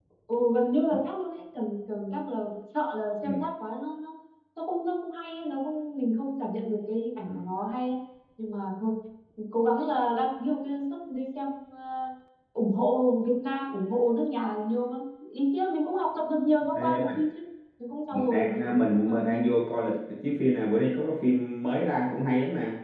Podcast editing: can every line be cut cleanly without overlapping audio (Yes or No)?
No